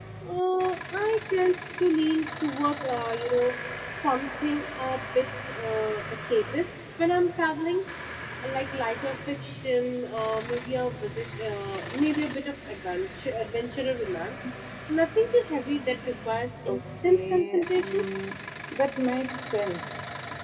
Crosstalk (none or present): present